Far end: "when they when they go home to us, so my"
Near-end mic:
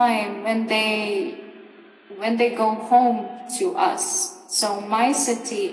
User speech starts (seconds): none

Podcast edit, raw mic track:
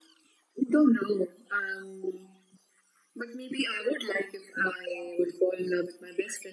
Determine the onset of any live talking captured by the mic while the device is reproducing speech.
none

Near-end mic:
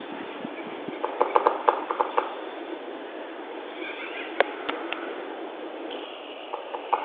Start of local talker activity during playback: none

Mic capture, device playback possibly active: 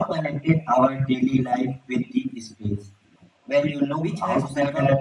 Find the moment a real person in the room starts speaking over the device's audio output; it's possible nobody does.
4 s

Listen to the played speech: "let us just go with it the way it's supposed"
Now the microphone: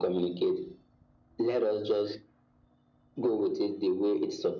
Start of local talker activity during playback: none

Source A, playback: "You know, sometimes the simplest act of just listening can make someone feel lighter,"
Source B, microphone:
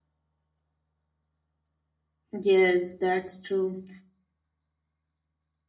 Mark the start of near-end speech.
2 s

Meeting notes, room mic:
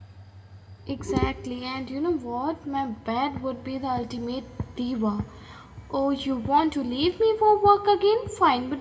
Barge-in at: 1 s

